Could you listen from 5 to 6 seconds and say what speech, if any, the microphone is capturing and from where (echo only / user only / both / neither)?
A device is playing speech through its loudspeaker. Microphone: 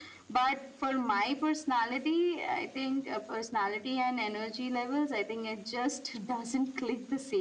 echo only